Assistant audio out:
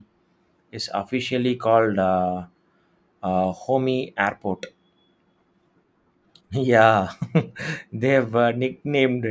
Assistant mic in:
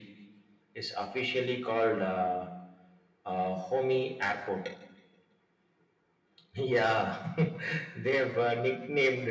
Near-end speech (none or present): none